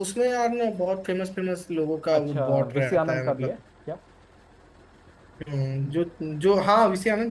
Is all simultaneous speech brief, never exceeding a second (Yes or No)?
No